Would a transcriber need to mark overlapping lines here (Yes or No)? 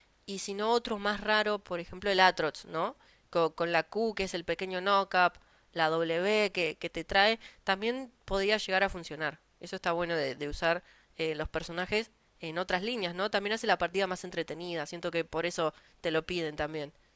No